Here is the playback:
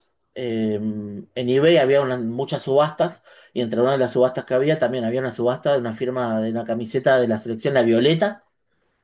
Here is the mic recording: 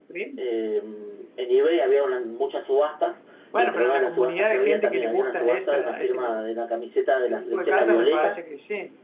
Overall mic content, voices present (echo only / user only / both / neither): both